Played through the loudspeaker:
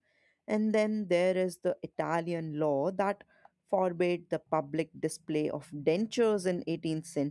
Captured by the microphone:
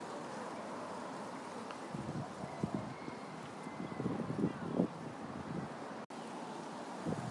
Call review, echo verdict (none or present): none